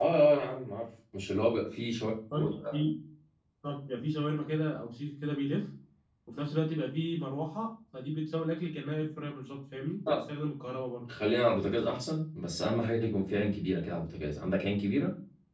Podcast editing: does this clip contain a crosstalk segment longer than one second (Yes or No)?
No